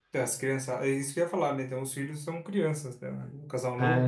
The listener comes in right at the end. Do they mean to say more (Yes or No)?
Yes